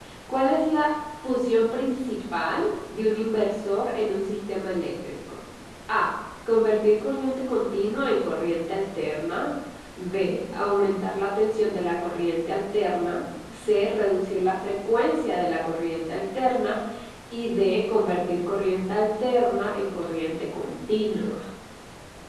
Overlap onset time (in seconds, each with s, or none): none